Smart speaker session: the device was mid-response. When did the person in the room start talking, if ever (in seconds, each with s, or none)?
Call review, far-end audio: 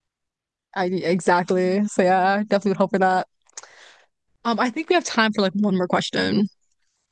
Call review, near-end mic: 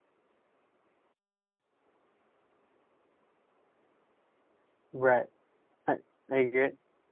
4.9 s